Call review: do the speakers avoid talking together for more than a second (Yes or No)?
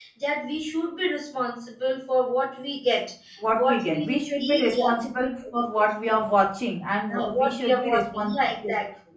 No